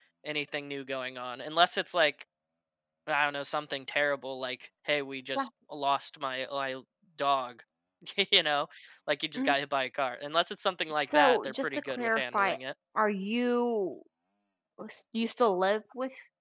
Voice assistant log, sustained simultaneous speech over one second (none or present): present